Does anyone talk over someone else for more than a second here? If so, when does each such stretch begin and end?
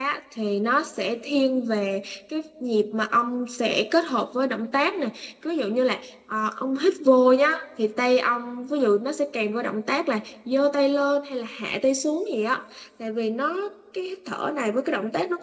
none

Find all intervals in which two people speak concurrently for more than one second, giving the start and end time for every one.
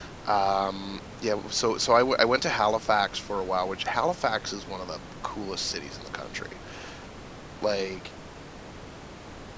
none

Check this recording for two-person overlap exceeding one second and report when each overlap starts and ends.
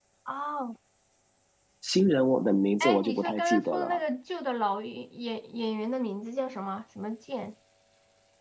2.8-4.0

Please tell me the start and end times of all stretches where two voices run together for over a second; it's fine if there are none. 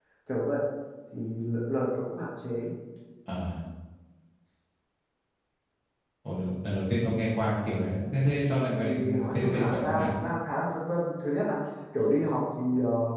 8.8-10.1

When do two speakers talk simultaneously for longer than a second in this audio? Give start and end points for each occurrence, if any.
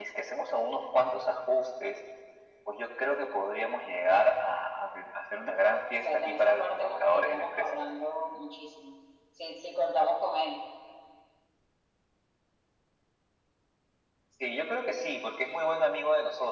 6.0-7.8

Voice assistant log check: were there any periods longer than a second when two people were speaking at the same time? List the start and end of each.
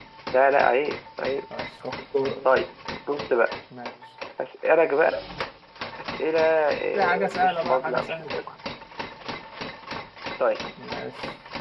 6.9-8.3

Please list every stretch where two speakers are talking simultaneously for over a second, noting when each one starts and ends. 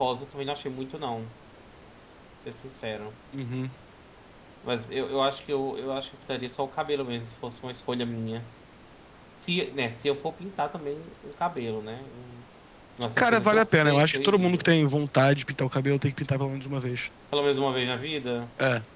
13.2-14.7

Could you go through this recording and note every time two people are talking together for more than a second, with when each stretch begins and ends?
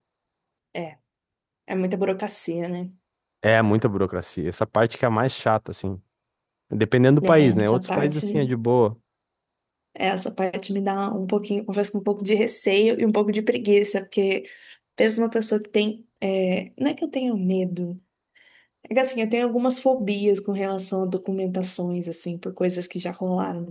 7.2-8.5

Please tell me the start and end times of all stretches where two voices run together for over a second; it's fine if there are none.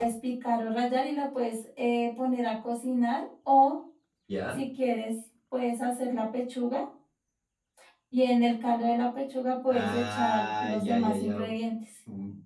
9.7-11.3

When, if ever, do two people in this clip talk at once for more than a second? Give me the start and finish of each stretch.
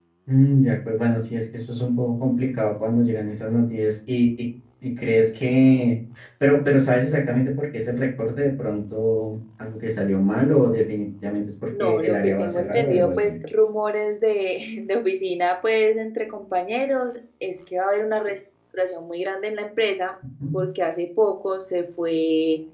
11.8-13.3

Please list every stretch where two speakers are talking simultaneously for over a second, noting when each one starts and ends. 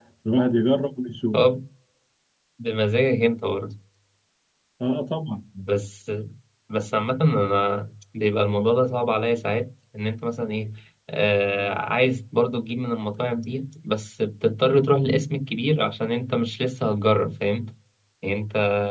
none

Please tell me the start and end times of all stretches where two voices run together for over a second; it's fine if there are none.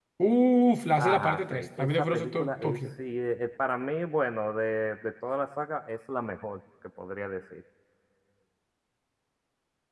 1.0-2.8

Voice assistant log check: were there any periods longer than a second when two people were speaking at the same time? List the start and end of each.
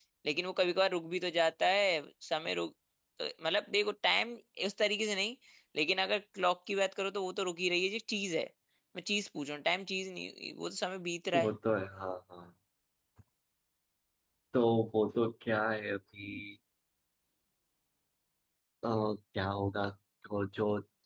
none

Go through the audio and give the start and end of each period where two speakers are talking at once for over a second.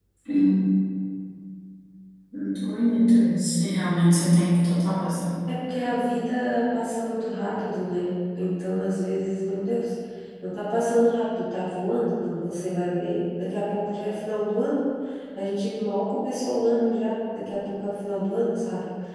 none

